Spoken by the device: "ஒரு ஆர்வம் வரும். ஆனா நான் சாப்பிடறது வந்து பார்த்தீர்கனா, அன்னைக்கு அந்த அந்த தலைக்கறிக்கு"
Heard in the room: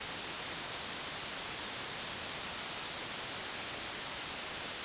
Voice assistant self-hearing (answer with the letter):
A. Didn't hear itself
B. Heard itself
A